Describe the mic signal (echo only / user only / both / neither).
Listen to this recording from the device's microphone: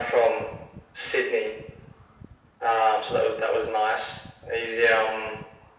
echo only